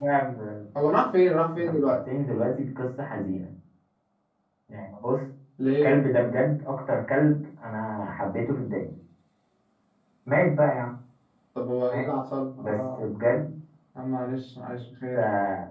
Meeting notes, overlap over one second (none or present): none